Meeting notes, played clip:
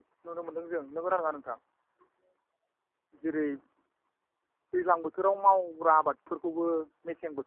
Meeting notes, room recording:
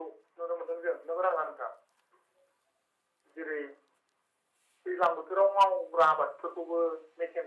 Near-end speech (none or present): none